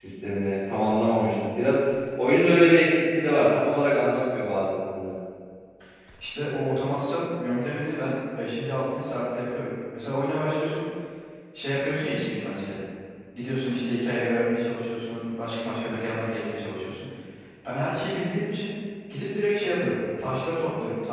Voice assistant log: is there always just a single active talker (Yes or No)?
Yes